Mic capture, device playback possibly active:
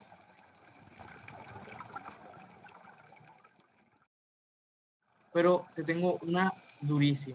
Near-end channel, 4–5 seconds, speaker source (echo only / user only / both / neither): neither